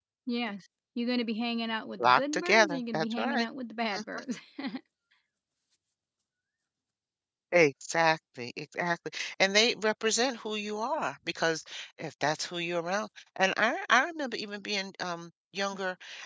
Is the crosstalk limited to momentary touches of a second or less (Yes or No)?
No